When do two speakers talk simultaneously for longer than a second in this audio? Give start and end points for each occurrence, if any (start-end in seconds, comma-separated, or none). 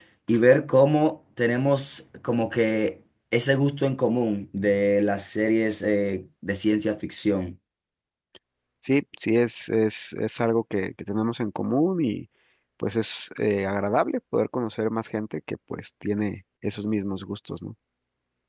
none